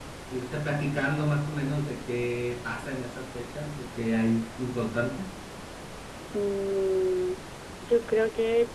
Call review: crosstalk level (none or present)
none